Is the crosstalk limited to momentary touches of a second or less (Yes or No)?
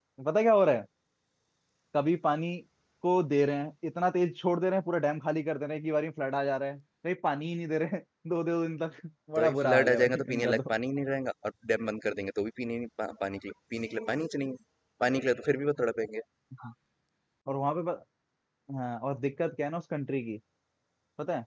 No